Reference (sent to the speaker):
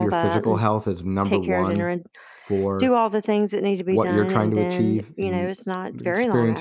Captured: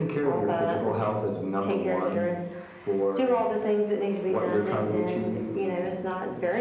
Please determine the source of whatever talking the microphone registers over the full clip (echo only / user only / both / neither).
echo only